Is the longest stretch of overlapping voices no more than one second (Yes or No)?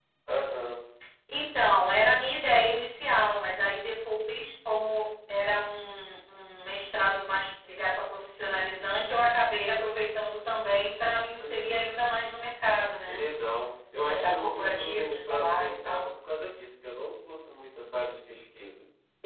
No